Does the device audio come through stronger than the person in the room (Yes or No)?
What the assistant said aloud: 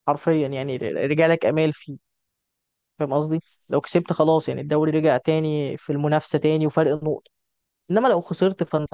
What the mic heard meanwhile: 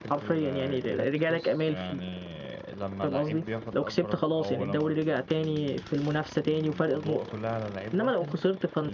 Yes